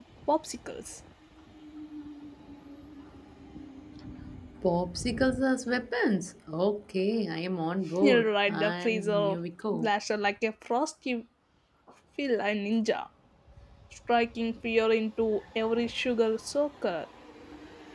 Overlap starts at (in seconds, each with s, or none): 8.0 s